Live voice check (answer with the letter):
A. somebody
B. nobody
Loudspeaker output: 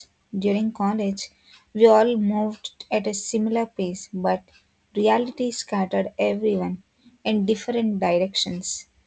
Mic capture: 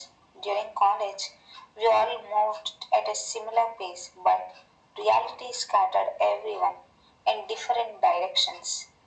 B